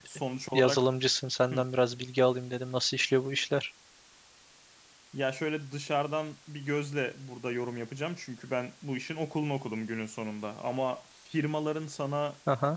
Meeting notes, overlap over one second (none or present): none